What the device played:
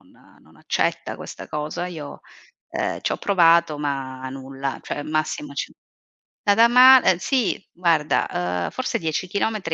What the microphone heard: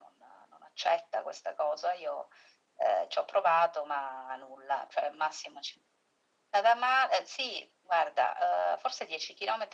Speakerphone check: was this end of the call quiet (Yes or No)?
Yes